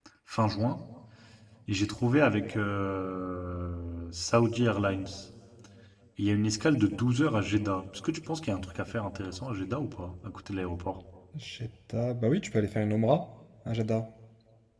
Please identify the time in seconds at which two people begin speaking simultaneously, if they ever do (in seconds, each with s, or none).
none